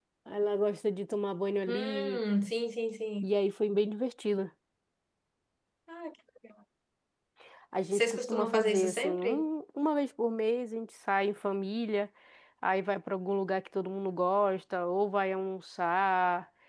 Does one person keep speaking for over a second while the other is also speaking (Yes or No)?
Yes